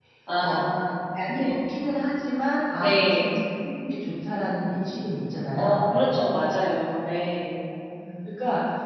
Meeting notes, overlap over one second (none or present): none